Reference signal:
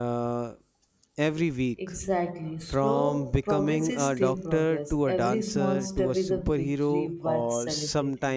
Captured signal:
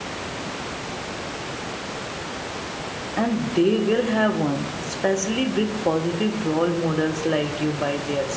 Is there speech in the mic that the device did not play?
Yes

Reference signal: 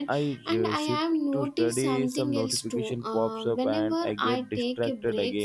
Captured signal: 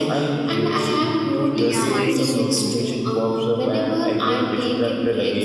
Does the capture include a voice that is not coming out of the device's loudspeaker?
Yes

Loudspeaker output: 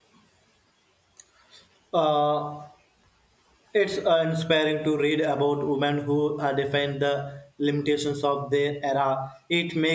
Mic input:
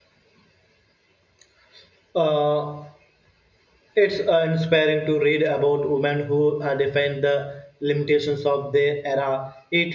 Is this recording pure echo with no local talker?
Yes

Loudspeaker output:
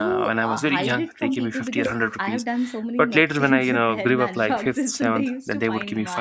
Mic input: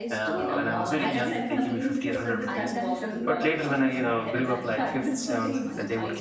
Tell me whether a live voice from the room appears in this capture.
Yes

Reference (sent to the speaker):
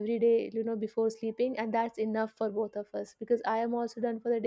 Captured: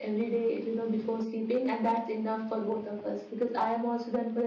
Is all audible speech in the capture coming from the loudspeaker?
Yes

